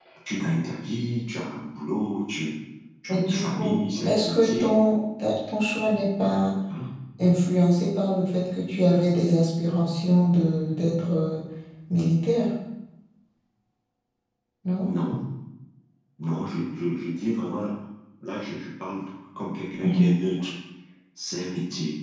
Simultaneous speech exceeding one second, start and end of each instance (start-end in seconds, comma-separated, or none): 3.1-4.7